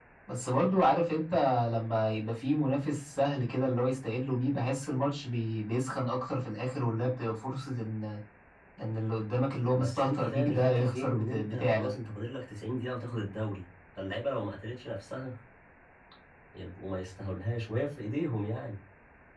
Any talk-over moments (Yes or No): Yes